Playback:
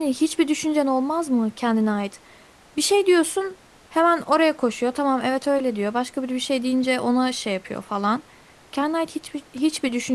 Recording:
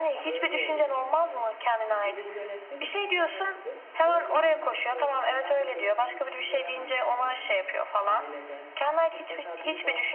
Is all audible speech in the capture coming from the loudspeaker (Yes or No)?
No